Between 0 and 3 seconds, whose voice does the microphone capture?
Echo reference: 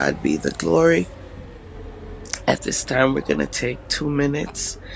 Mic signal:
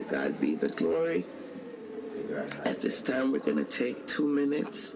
both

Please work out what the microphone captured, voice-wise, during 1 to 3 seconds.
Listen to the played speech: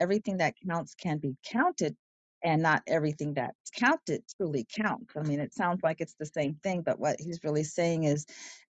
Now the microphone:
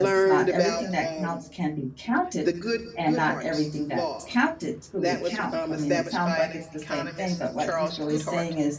both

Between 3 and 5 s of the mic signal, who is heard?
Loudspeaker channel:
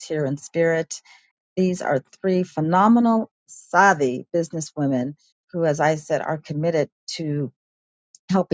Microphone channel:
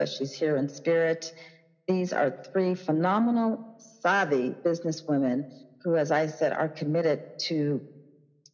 echo only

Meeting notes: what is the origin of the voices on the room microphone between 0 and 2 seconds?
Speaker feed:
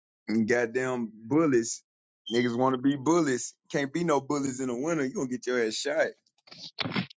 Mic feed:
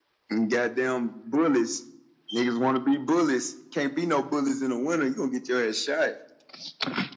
echo only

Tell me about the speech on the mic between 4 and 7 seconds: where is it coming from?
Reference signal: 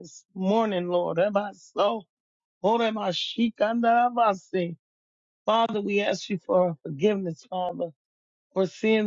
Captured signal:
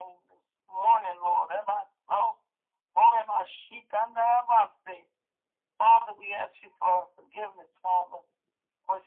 echo only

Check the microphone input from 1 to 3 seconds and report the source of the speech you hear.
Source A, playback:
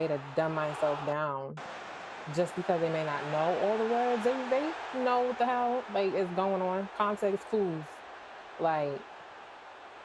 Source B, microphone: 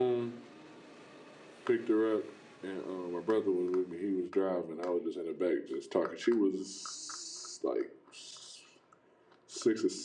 user only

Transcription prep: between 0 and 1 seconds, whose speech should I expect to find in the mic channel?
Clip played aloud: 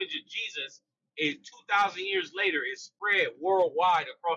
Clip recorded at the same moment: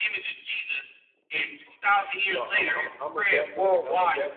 echo only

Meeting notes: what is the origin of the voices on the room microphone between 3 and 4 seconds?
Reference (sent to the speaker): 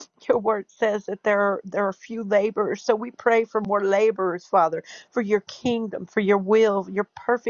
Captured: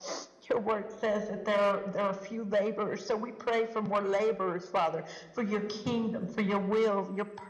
echo only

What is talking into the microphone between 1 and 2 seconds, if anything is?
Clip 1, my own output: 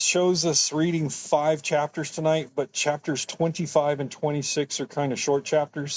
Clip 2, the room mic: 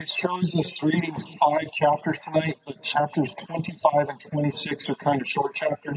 echo only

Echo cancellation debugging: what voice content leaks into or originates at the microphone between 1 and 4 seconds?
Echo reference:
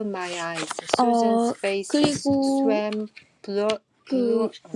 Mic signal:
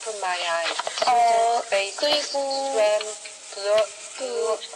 echo only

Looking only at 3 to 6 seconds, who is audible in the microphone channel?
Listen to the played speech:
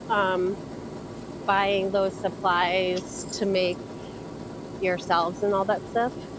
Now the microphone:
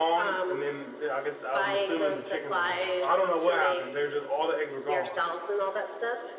both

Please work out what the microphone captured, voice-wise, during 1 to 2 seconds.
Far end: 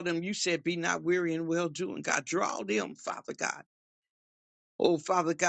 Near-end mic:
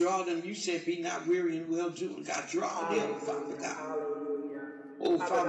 echo only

